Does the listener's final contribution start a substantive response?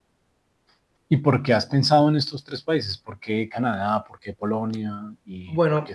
Yes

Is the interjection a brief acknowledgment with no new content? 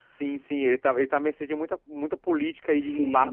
No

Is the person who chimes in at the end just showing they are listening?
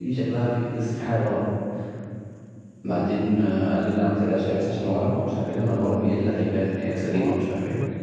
No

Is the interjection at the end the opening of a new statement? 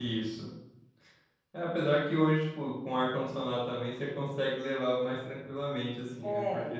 No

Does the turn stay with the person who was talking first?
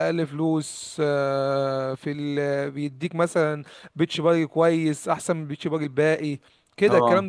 Yes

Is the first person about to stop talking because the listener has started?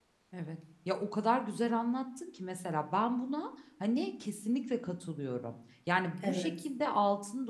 No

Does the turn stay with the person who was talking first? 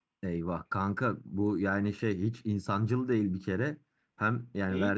Yes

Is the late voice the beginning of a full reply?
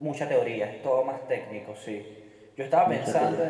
No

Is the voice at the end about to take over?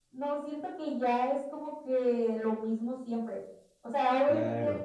No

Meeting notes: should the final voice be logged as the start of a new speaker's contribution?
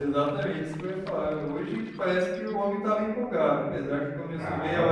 No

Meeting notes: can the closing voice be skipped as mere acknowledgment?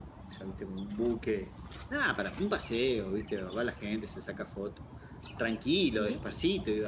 Yes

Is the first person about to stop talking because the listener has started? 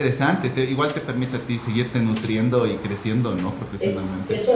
Yes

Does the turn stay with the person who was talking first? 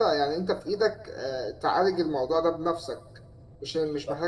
No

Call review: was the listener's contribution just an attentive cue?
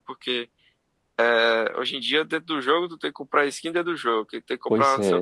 Yes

